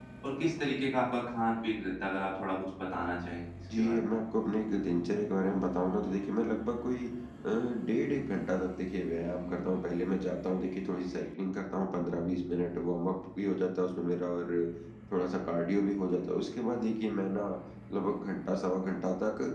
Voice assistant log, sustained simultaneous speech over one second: none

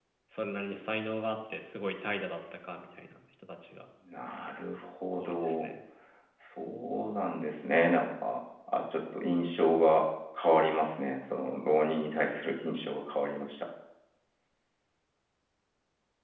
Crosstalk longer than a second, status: none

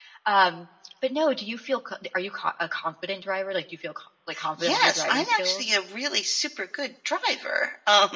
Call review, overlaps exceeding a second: present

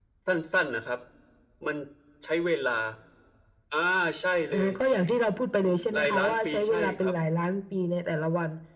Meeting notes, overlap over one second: present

